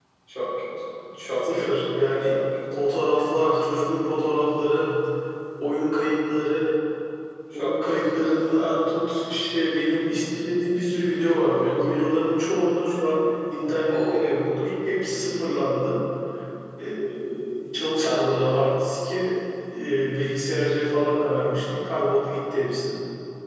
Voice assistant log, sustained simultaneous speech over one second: present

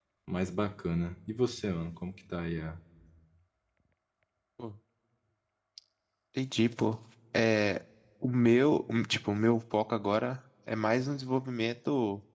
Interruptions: none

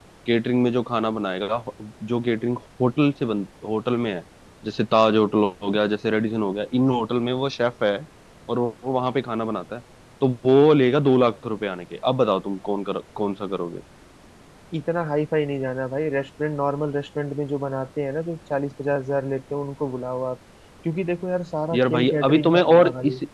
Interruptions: present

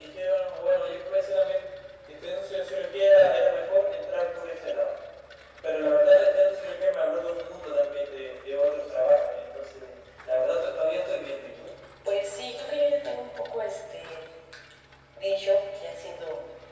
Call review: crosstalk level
none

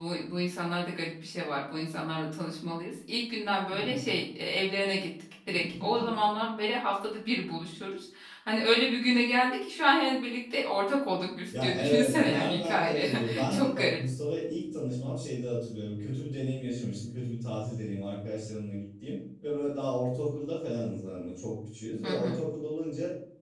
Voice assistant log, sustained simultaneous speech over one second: present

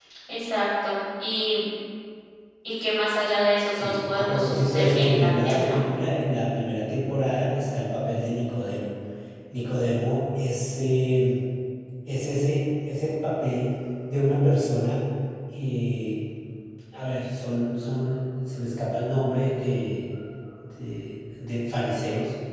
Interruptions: present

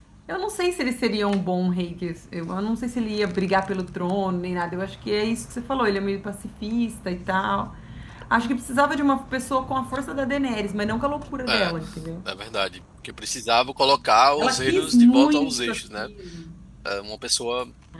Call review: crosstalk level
present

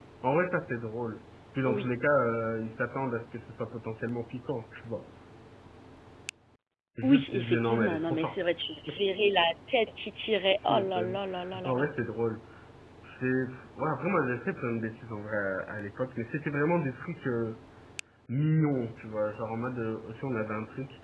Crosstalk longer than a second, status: present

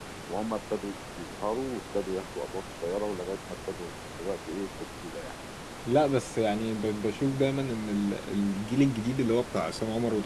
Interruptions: none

